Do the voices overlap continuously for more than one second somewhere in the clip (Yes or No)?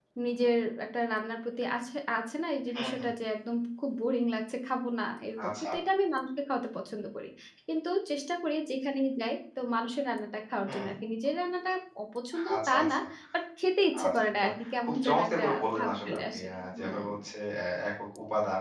Yes